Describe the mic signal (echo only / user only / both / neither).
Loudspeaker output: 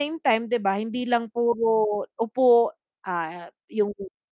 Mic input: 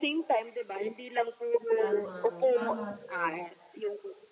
both